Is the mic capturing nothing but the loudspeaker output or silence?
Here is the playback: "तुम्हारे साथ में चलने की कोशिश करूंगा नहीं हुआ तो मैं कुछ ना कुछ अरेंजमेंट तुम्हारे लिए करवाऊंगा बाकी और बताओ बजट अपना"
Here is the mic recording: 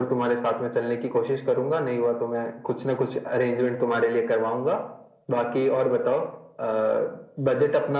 Yes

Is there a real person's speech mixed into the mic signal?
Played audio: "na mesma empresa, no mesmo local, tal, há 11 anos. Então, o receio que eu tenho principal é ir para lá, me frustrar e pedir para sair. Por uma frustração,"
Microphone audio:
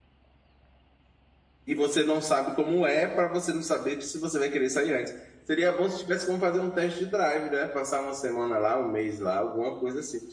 Yes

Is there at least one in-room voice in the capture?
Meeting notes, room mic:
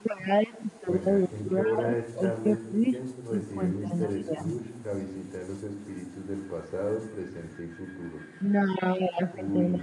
Yes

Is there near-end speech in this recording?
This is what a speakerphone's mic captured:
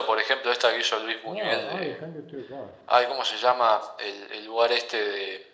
Yes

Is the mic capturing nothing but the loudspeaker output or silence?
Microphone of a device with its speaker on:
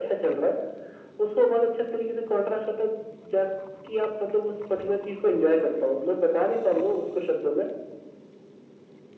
Yes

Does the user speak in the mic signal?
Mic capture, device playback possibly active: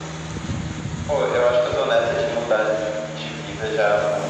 No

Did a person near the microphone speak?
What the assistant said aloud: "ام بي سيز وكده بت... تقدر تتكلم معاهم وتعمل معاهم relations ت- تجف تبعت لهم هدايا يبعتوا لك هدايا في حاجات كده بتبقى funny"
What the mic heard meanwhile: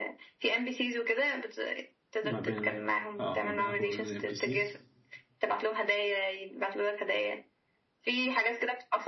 Yes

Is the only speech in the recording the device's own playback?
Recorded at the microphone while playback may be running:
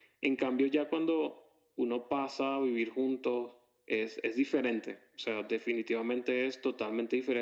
Yes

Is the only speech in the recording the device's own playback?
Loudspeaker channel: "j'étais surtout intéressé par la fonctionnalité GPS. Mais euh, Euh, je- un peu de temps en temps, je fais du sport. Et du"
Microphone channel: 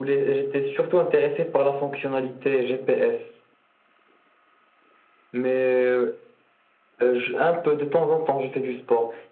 Yes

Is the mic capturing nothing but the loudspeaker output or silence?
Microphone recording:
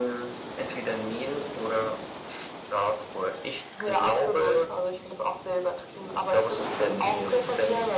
Yes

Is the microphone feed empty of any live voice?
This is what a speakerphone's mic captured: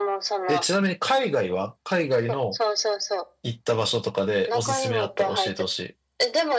No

